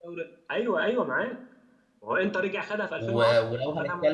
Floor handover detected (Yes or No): Yes